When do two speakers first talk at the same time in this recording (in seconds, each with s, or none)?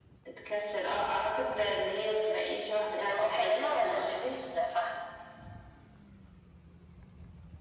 3.0 s